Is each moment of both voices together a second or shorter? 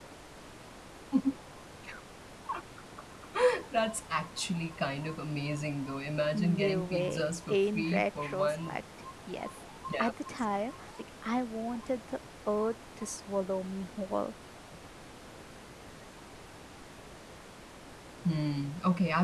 No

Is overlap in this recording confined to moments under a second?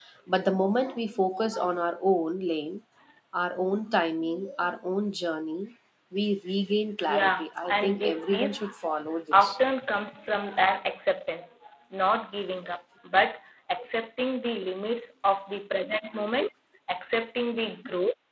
No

